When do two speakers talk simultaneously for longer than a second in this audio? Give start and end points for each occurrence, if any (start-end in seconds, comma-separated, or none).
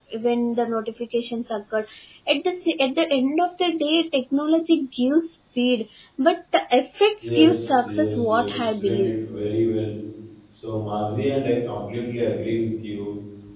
7.2-9.1